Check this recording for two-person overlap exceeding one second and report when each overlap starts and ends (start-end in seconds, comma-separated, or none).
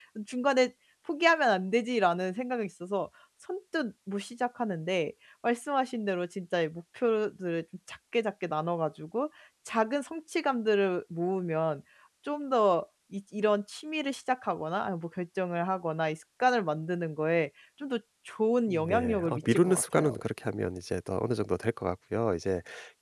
18.7-20.1